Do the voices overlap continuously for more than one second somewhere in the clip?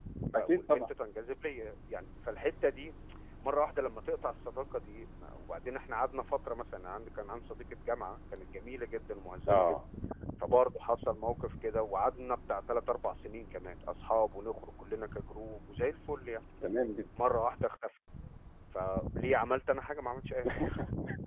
No

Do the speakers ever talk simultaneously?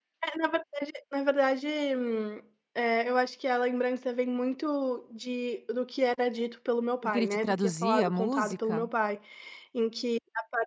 Yes, from 7.0 s

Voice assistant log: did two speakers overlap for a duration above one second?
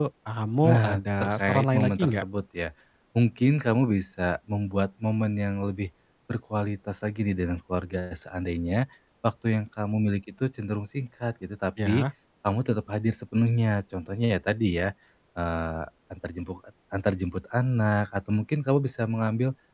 Yes, from 0.7 s

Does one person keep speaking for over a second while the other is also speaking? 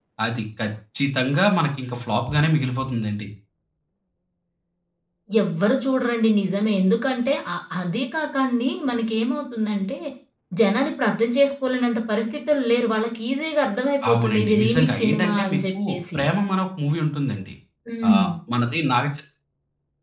Yes, from 14.1 s

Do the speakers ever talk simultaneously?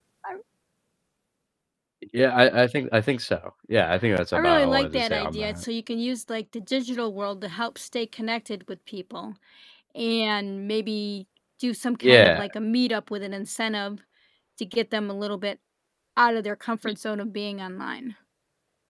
Yes, from 4.3 s

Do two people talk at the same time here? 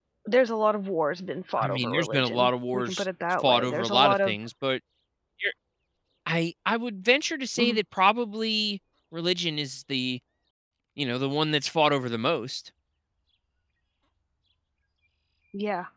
Yes, from 1.6 s

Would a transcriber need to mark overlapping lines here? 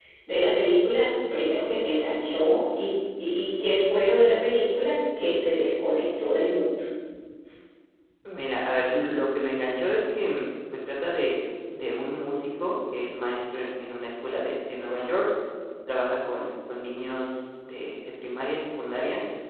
No

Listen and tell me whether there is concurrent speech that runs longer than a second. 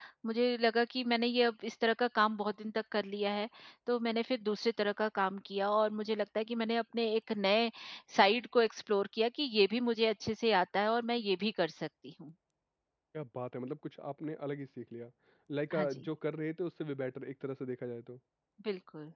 No

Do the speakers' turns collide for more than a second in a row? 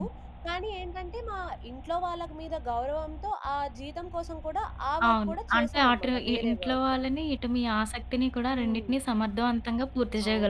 Yes, from 5.1 s

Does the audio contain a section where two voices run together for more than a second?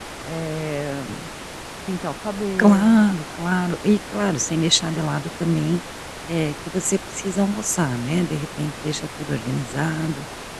No

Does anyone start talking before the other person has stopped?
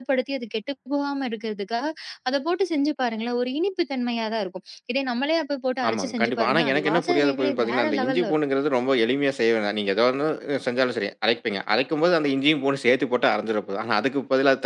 Yes, from 5.8 s

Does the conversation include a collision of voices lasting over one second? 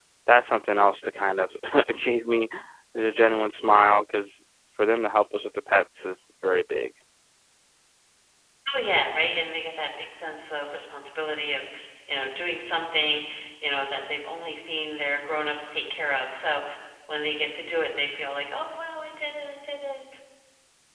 No

